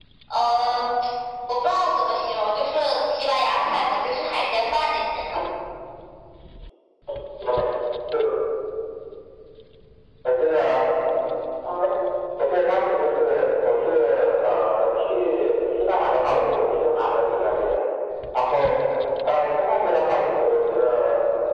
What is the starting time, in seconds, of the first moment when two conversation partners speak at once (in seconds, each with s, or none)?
none